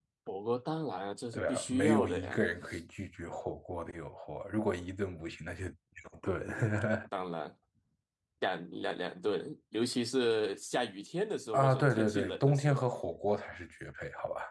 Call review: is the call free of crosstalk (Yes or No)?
No